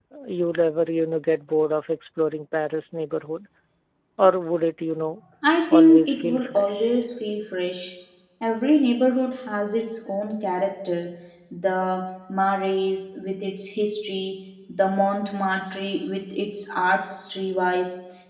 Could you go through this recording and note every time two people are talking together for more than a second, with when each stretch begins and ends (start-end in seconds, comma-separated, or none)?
5.7-7.0